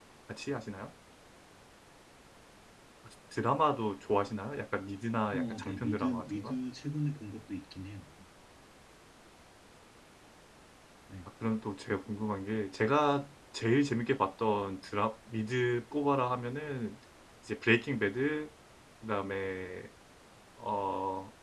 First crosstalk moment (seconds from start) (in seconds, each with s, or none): 5.3 s